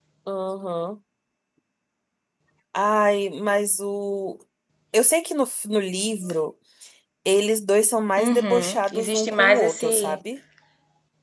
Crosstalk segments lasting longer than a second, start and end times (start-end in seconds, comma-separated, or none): 8.2-10.2